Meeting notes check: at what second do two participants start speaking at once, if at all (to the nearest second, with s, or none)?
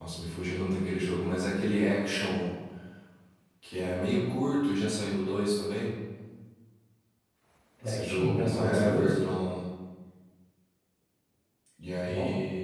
8 s